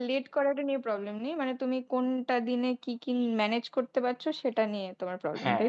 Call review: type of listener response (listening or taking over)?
taking over